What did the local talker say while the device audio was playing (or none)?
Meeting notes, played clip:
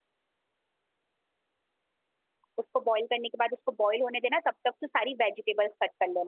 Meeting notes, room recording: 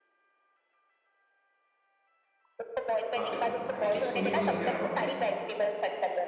हाँ अरे भाई किसको नहीं पसंद यार ब्रोकलीज